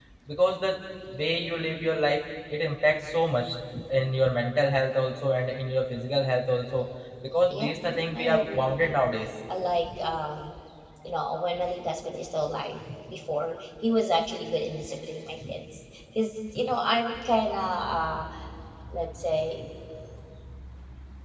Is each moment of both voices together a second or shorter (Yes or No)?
No